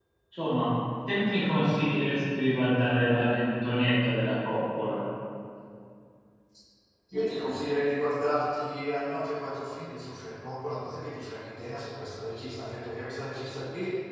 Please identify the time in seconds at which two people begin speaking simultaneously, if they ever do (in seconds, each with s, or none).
none